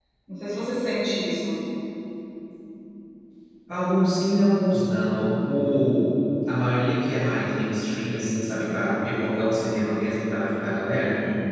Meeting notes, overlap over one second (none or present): none